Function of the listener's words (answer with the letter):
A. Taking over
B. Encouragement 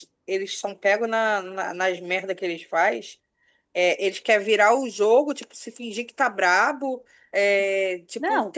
B